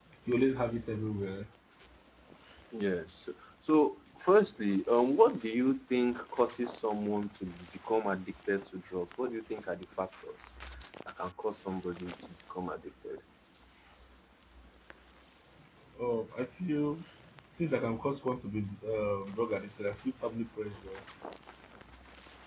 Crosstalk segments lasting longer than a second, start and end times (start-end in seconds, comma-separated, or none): none